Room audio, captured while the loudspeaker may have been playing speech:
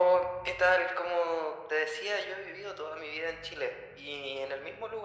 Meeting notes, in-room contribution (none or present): none